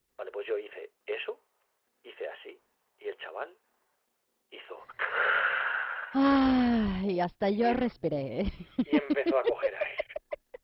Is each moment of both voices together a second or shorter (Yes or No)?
Yes